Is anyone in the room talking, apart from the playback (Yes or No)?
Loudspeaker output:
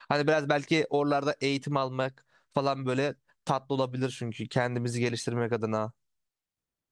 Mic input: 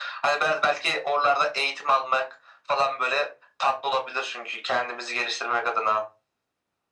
No